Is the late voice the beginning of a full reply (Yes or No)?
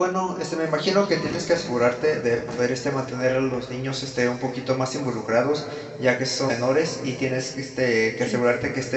No